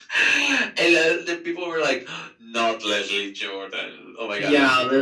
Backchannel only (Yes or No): No